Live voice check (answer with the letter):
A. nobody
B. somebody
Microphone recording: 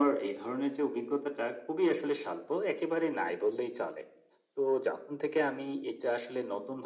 A